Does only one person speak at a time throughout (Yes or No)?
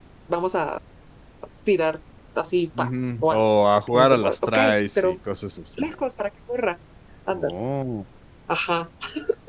No